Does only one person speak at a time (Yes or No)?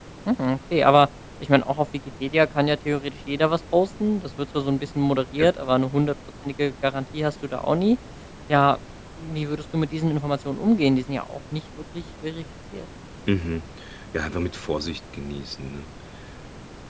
Yes